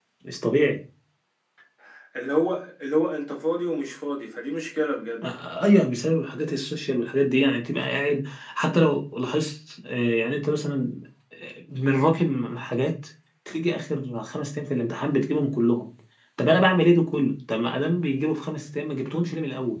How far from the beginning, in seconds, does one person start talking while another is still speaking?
none

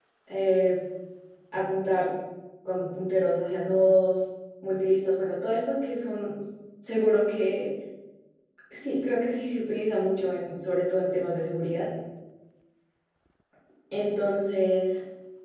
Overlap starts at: none

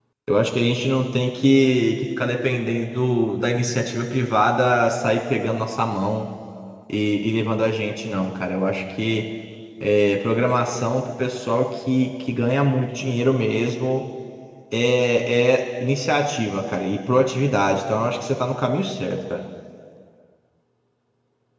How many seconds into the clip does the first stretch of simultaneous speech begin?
none

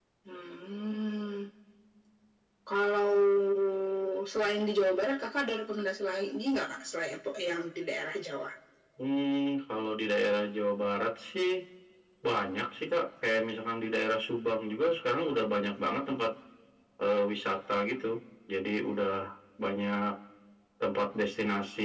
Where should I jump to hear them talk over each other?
none

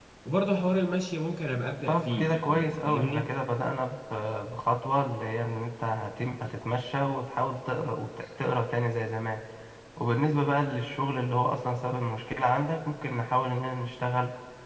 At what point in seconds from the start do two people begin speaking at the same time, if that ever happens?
1.9 s

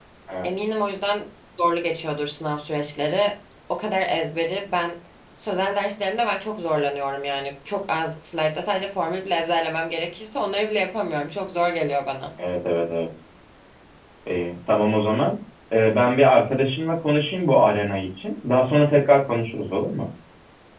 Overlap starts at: none

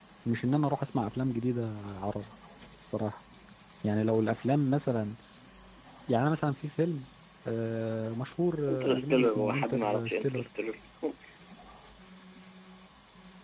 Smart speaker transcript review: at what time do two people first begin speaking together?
8.7 s

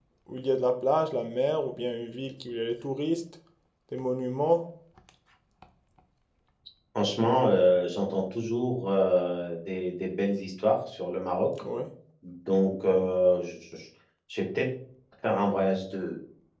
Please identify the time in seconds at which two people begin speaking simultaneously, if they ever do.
none

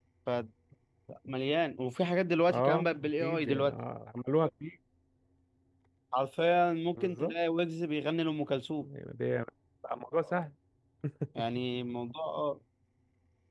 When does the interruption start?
2.5 s

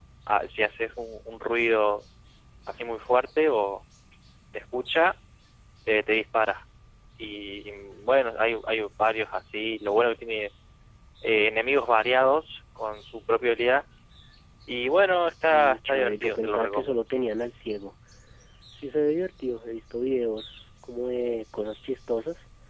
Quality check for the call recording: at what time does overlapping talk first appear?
15.5 s

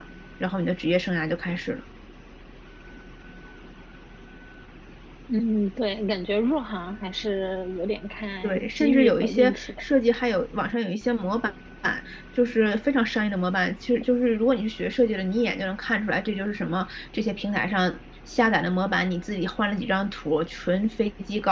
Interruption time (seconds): 8.4 s

